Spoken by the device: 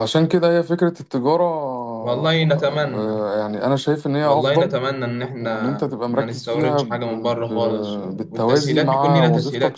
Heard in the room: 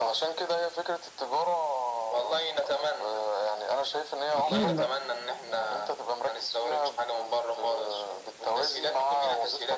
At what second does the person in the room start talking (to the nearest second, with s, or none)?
4 s